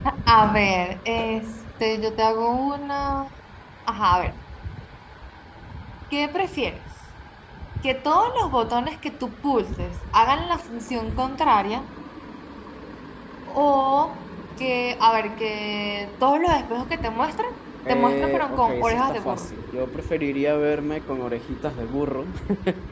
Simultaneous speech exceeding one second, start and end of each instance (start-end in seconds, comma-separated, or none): 17.9-19.5